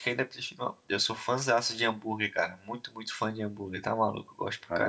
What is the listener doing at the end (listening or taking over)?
taking over